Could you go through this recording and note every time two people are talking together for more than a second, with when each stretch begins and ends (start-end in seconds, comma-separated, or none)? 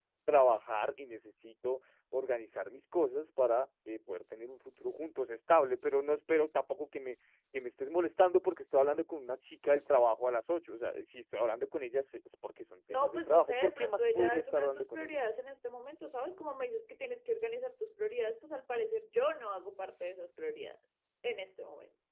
12.9-15.2